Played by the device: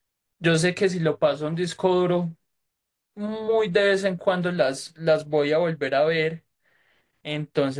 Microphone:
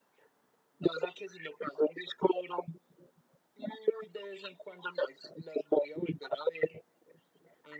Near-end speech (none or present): none